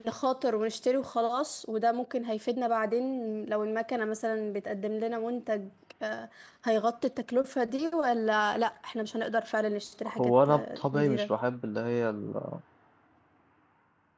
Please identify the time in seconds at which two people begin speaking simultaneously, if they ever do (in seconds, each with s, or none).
10.1 s